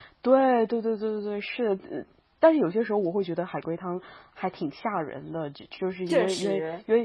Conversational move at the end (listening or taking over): listening